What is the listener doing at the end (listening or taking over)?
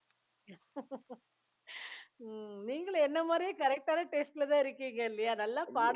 taking over